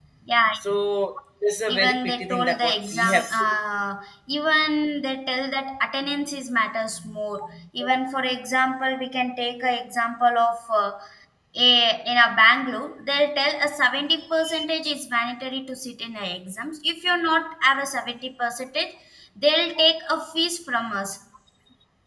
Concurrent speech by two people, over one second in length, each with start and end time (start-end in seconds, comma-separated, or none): 1.7-3.2